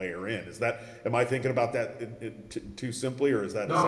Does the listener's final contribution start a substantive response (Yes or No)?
Yes